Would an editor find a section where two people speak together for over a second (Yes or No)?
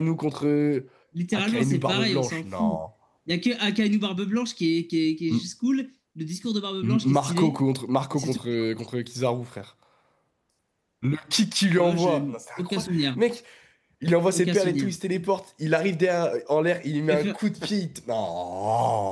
Yes